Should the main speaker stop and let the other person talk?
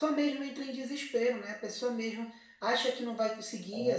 No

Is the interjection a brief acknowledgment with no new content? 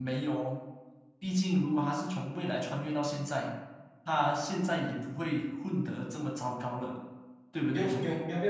No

